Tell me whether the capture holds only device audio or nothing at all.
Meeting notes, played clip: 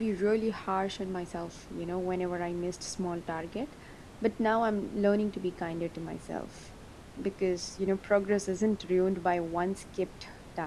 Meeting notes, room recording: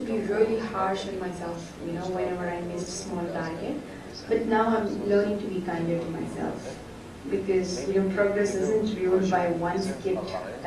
No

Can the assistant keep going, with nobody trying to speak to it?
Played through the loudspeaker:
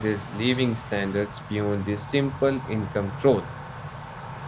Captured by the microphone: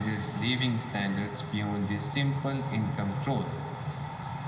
Yes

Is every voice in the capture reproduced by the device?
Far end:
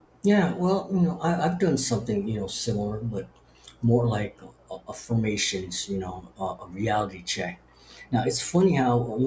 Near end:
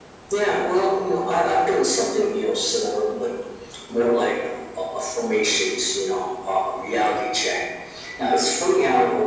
Yes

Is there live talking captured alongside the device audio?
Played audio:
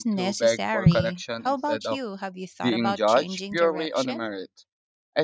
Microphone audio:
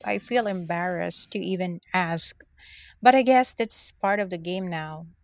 Yes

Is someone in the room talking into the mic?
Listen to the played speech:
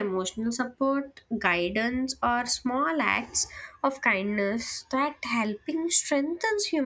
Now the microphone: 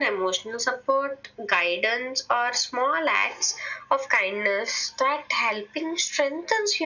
No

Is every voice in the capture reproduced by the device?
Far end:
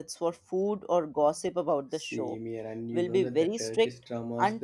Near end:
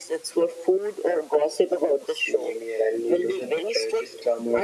Yes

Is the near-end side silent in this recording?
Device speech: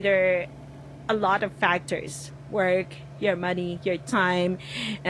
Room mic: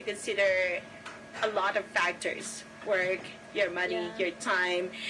No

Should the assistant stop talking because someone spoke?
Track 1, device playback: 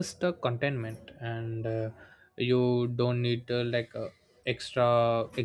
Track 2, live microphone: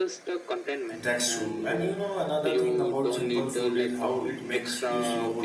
Yes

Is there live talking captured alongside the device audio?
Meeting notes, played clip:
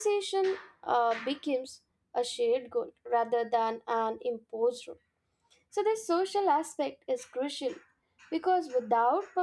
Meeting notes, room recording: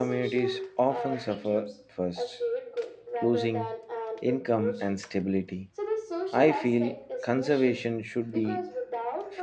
Yes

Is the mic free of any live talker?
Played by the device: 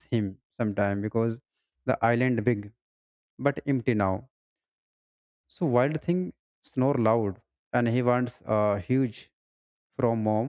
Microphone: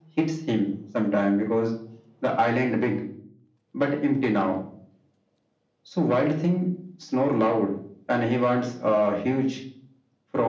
Yes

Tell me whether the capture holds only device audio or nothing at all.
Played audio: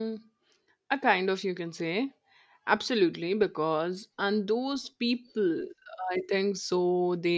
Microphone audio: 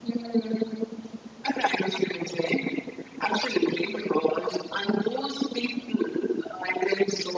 Yes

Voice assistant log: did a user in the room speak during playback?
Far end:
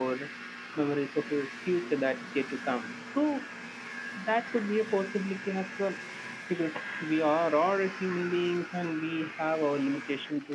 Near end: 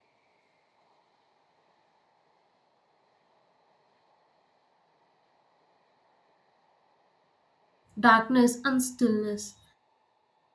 Yes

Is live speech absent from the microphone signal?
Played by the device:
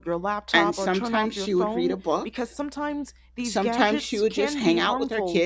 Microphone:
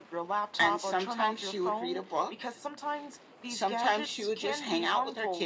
Yes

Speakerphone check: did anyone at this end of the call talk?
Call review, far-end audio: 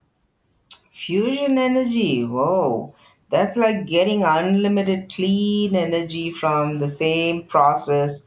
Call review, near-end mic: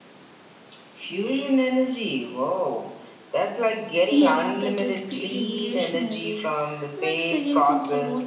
Yes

